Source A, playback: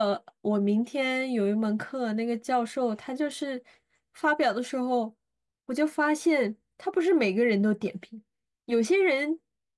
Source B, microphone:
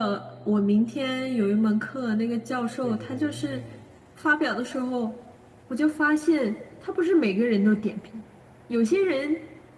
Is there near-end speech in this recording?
Yes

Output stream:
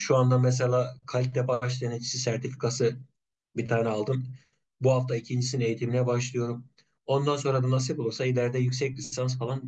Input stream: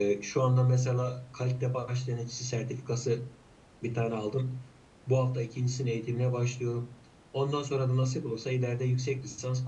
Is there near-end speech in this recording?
No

